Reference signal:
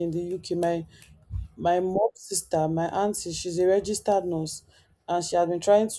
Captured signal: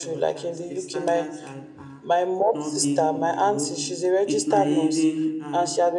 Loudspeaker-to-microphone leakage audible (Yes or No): Yes